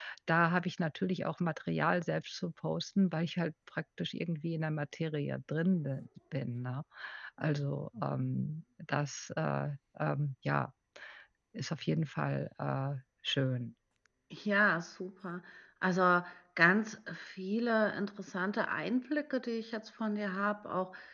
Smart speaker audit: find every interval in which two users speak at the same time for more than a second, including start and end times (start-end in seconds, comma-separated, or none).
none